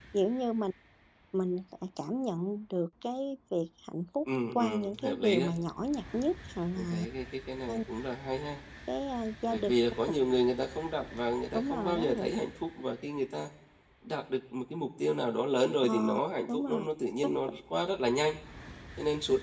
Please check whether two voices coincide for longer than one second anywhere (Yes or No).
Yes